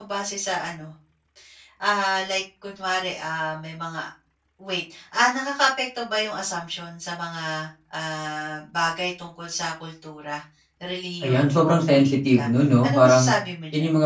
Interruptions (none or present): present